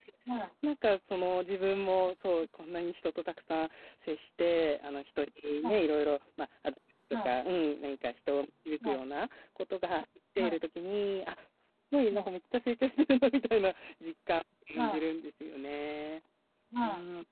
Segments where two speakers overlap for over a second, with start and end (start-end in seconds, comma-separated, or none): none